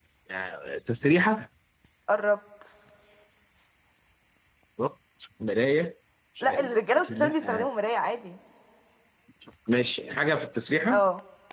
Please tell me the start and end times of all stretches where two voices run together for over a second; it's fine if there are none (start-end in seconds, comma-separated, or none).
6.4-7.7